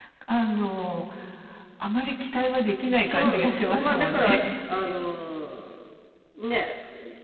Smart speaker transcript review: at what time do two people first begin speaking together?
3.0 s

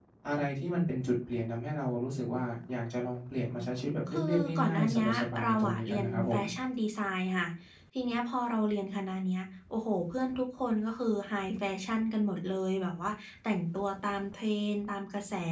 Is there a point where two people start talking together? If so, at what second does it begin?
4.1 s

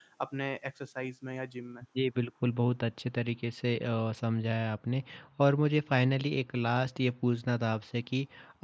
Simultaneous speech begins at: none

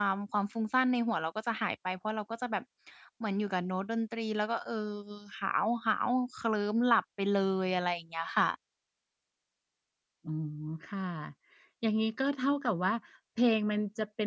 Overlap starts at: none

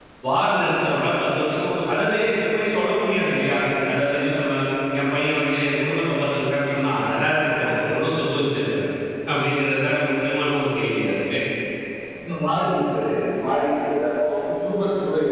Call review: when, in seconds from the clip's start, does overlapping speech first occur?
none

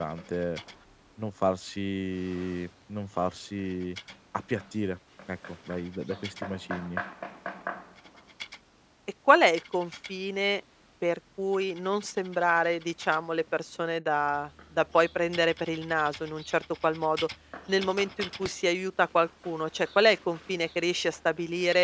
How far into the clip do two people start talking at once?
none

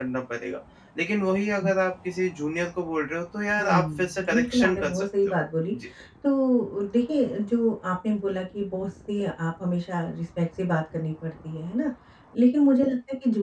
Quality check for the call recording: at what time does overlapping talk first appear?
3.6 s

